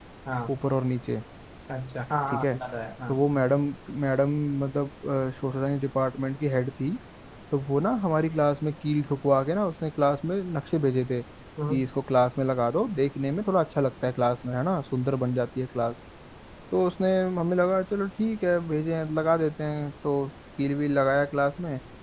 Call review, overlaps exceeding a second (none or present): none